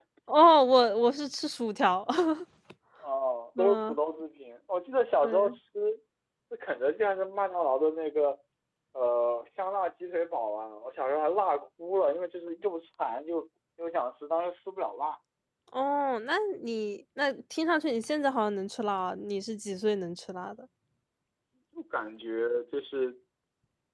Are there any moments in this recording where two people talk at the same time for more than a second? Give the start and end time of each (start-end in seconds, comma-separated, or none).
none